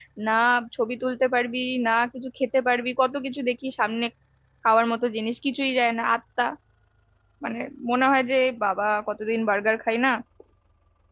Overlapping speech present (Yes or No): No